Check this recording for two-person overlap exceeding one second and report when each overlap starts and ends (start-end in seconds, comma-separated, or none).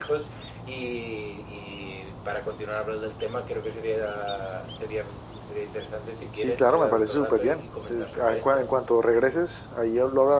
6.4-8.6